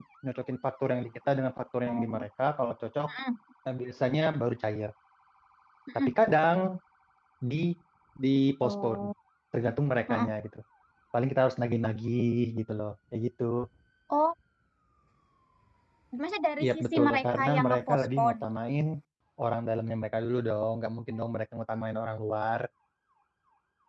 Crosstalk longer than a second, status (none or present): present